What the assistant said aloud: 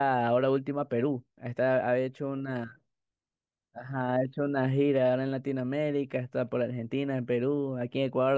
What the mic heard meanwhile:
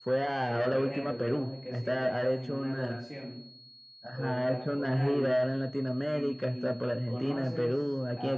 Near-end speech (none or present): present